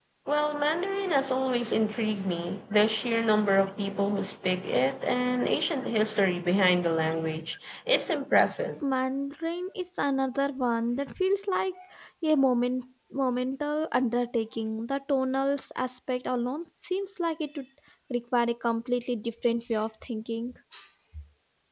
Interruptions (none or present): none